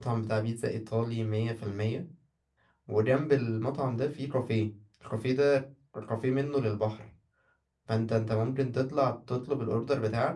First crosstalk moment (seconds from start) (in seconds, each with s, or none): none